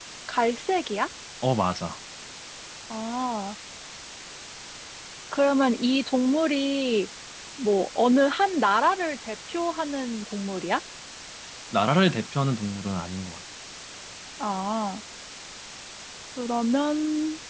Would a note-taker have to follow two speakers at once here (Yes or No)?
No